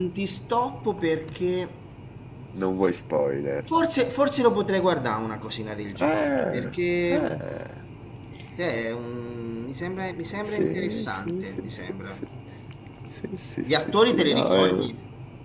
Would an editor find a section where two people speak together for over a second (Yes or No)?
Yes